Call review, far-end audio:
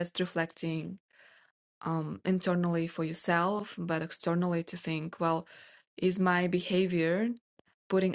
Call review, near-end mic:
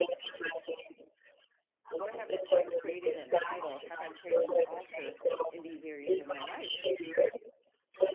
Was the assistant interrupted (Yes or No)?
Yes